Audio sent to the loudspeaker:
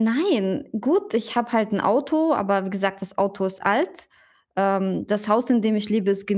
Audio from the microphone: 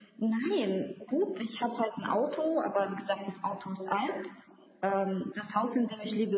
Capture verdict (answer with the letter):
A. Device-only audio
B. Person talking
A